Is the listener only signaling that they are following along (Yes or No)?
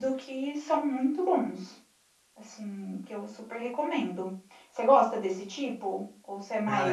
No